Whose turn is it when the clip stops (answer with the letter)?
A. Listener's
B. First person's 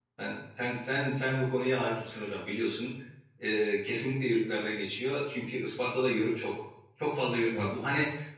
B